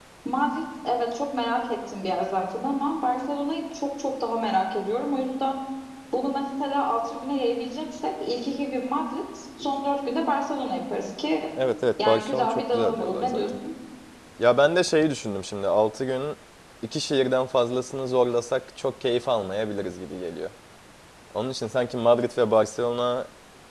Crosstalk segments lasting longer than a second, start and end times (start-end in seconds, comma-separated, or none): 12.1-13.5